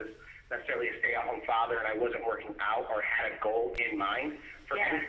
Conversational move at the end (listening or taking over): listening